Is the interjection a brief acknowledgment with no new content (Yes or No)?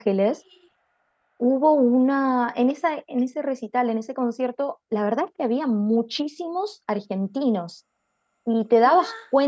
Yes